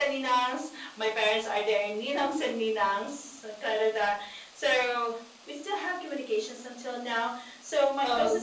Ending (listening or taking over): listening